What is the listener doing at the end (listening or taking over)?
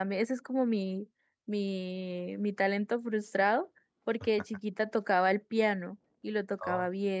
listening